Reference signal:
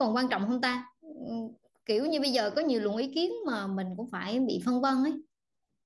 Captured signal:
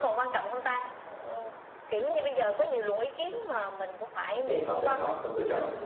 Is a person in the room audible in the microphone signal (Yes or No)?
Yes